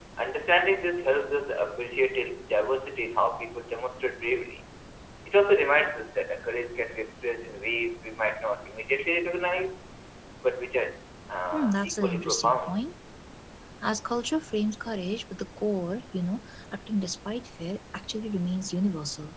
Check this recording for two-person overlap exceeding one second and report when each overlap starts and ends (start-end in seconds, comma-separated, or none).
11.5-12.8